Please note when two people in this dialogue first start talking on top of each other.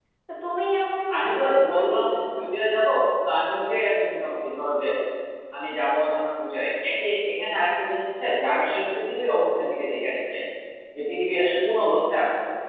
1 s

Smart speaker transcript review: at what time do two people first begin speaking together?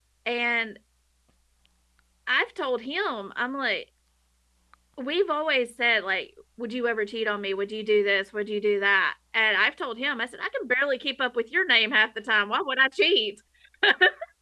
none

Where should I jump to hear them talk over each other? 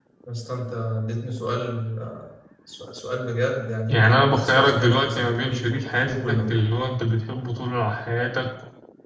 4 s

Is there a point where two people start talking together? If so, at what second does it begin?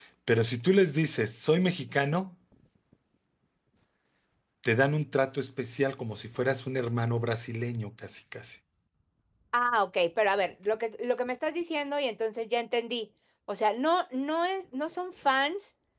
none

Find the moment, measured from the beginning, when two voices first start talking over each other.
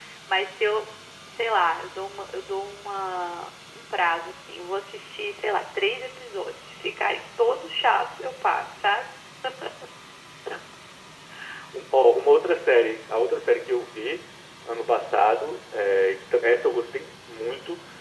none

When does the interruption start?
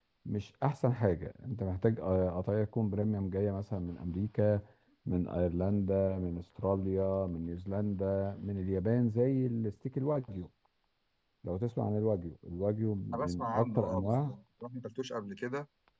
13 s

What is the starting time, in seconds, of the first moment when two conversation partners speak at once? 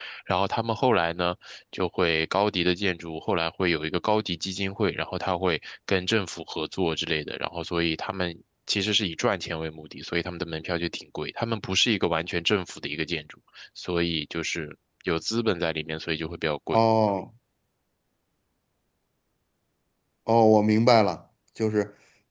none

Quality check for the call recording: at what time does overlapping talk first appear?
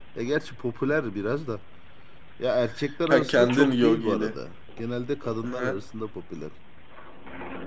3 s

